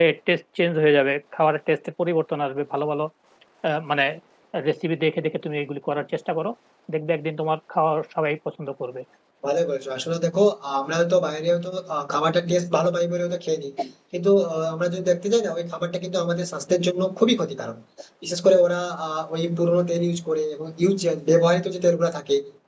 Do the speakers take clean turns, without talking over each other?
Yes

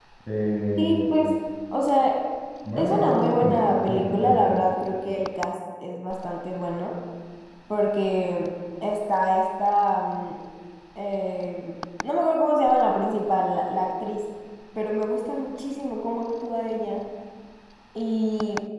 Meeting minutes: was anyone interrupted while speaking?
Yes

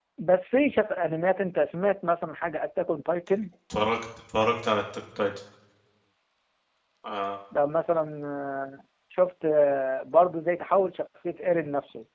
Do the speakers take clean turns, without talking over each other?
Yes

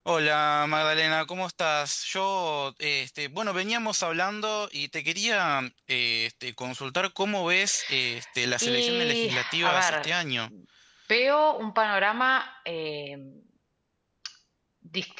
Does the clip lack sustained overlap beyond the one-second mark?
No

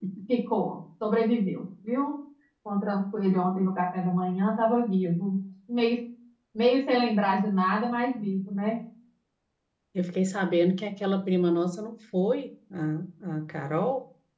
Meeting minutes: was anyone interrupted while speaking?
No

